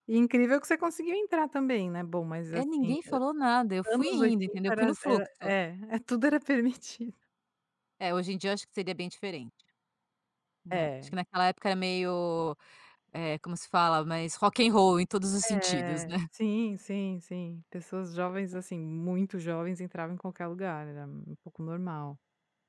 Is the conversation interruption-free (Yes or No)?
No